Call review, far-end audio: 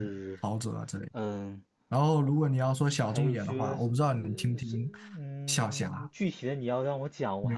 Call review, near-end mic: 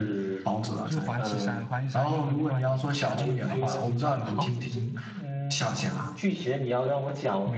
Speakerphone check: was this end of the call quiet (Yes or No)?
No